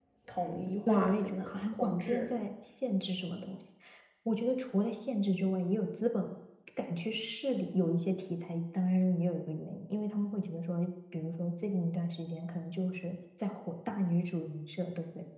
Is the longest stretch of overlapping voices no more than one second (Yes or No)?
No